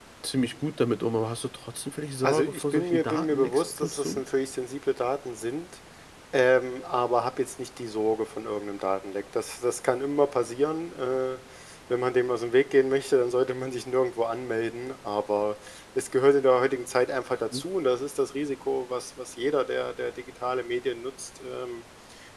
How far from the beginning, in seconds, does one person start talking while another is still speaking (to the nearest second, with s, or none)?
2 s